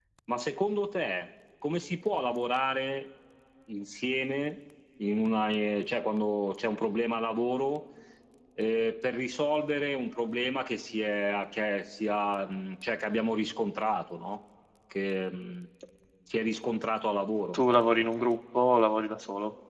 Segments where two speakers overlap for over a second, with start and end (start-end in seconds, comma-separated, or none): none